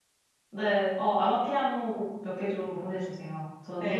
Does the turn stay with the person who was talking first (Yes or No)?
No